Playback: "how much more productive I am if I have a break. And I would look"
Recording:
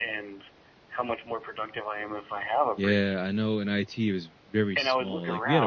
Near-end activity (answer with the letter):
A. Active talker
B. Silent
A